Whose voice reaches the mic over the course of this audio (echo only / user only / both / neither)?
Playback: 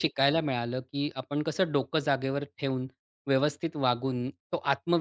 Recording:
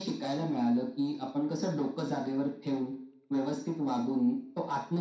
echo only